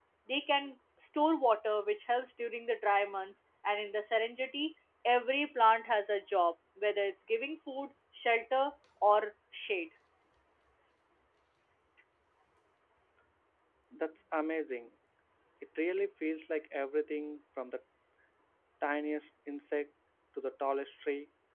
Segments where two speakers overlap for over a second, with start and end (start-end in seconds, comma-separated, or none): none